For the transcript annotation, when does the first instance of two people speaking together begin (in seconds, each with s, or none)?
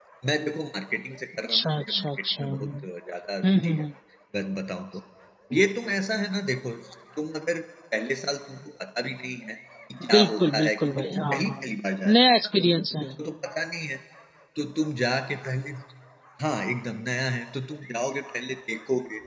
1.4 s